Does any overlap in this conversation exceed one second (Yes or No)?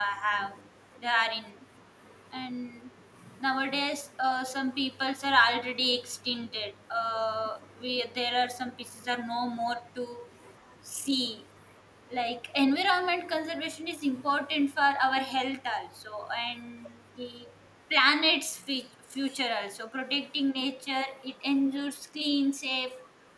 No